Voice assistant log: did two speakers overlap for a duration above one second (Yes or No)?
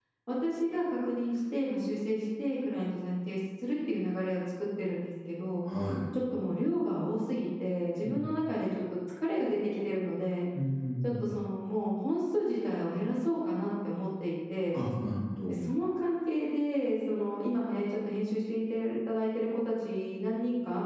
No